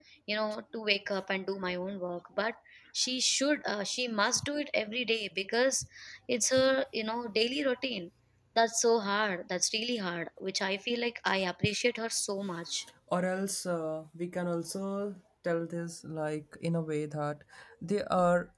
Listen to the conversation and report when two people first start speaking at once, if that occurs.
none

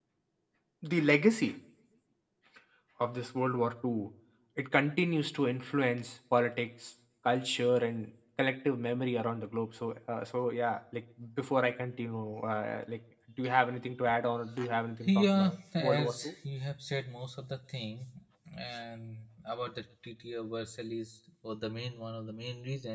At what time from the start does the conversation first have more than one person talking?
15.0 s

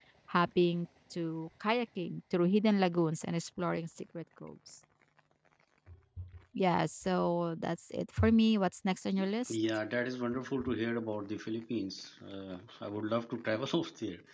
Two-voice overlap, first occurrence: none

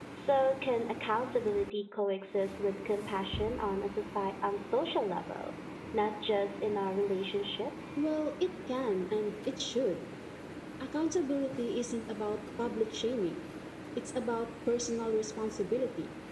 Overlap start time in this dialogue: none

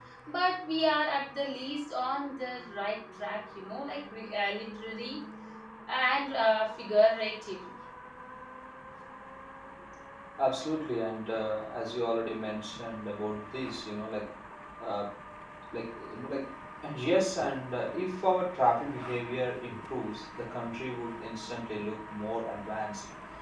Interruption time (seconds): none

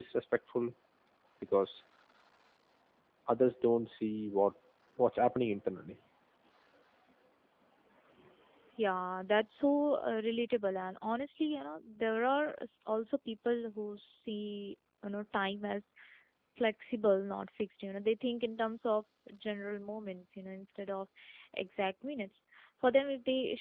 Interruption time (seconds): none

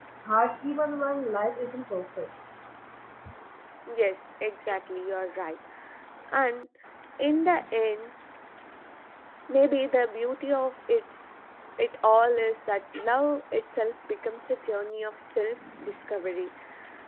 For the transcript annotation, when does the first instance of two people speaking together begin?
none

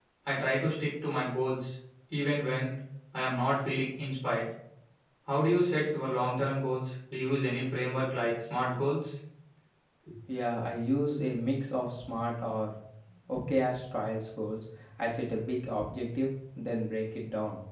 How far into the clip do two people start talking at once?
none

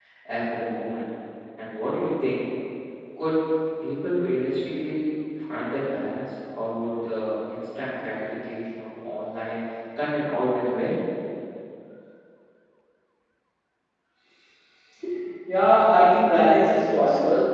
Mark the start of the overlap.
none

